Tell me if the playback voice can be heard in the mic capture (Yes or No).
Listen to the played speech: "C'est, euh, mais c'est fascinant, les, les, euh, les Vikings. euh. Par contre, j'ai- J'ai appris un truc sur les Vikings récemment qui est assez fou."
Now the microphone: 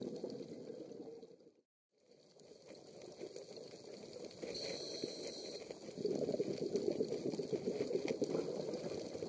No